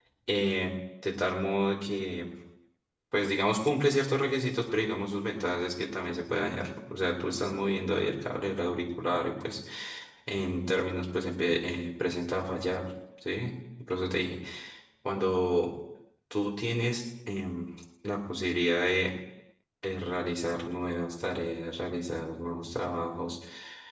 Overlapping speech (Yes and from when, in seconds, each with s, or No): No